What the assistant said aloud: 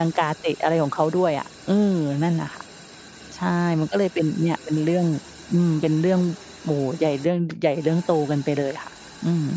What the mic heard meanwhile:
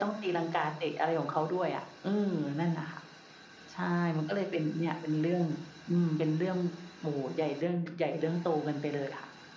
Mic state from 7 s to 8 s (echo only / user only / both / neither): echo only